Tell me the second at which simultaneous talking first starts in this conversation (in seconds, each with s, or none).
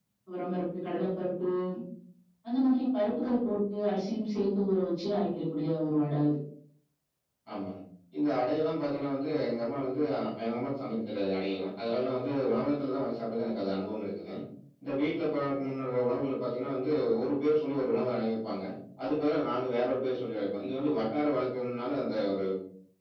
none